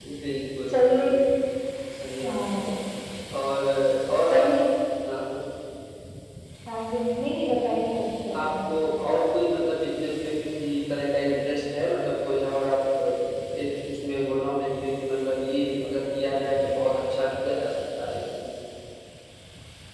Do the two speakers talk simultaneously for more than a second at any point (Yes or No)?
No